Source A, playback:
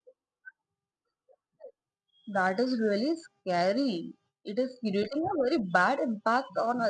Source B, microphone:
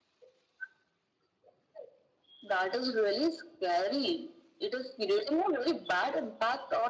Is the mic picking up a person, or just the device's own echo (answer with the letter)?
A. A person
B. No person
B